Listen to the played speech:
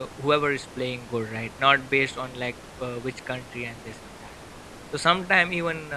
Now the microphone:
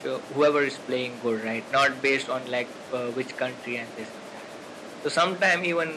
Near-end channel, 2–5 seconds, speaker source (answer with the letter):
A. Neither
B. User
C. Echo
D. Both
C